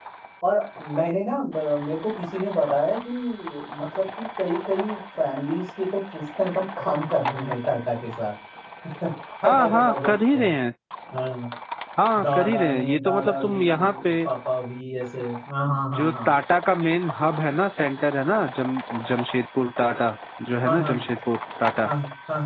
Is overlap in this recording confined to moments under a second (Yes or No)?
No